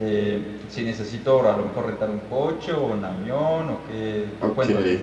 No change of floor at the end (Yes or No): No